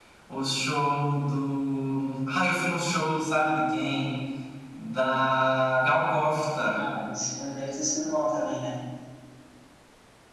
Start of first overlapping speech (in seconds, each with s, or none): none